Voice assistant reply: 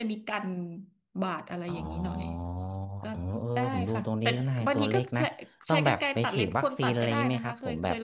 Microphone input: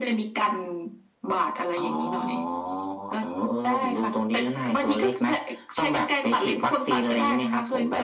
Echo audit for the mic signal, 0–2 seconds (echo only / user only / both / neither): echo only